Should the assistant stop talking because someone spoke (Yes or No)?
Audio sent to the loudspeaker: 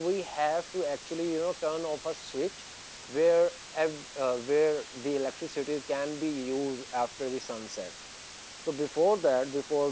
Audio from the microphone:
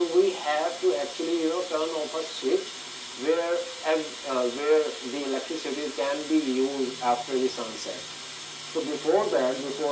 No